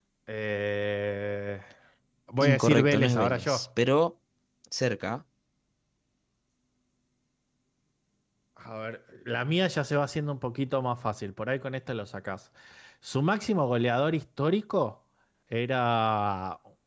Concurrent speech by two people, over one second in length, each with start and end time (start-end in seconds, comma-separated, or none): 2.4-3.7